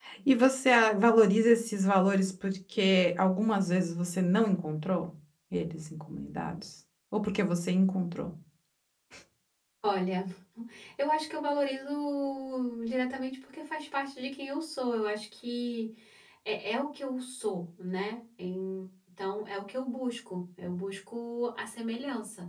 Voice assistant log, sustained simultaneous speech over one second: none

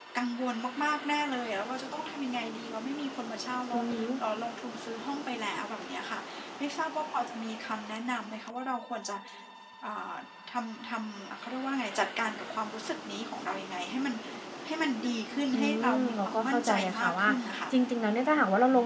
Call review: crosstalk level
present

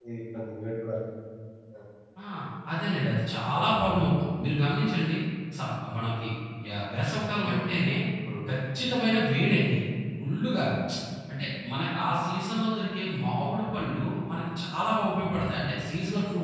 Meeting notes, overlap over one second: none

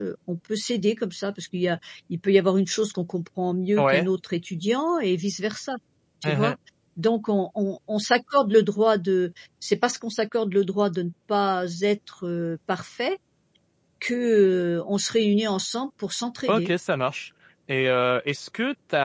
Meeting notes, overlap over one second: none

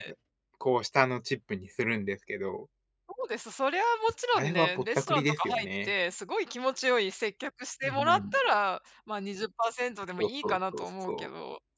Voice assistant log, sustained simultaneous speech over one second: present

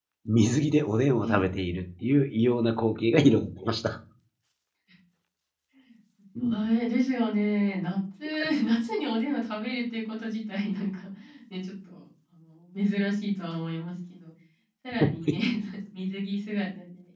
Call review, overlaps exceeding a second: none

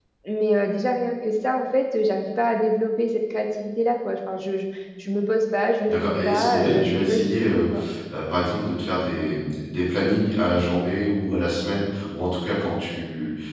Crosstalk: present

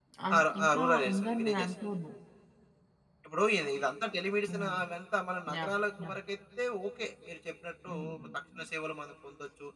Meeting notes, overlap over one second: present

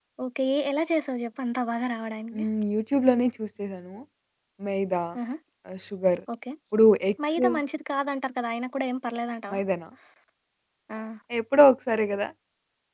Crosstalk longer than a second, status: none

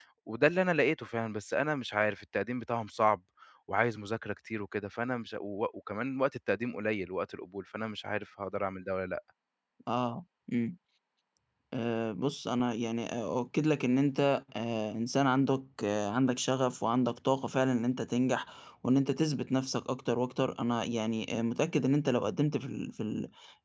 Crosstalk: none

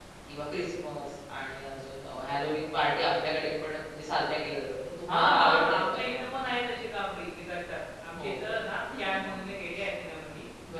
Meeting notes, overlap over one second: present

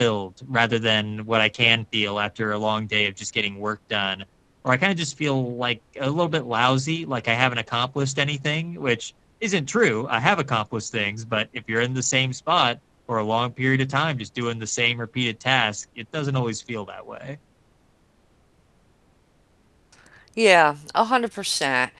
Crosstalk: none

